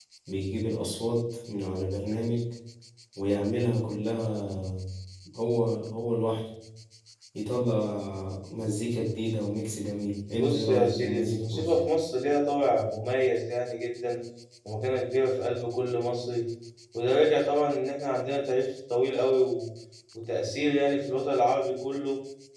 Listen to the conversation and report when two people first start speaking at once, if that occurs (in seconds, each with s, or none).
10.3 s